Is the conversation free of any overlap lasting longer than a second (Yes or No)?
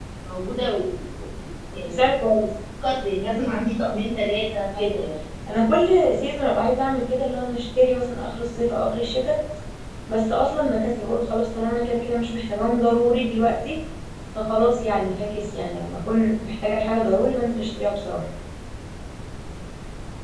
Yes